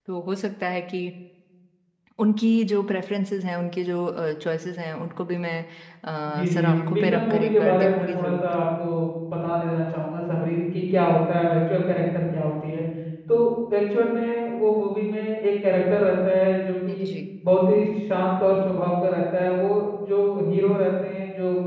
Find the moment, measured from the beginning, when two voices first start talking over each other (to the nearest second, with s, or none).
6 s